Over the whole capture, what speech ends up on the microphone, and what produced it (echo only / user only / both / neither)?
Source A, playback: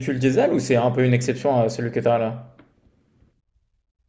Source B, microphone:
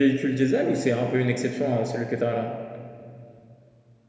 echo only